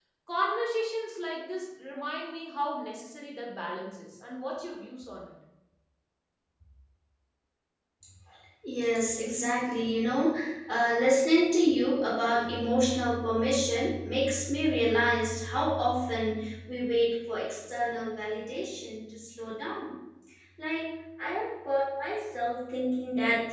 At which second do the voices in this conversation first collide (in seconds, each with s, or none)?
none